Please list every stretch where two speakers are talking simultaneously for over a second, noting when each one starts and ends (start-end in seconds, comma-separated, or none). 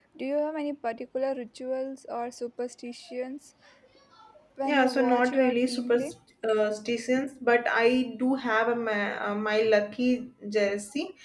4.7-6.1